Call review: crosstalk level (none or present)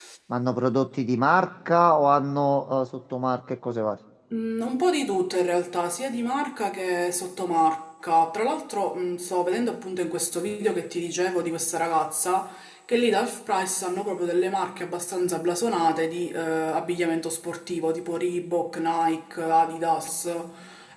none